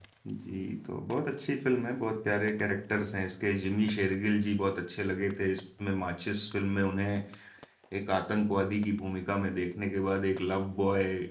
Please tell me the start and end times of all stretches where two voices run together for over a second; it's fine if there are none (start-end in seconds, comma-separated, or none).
none